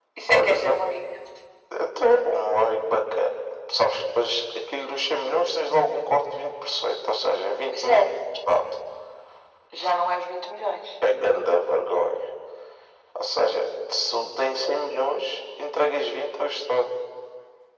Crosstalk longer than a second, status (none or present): none